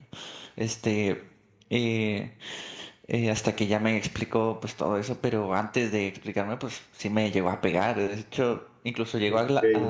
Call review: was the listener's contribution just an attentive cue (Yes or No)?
Yes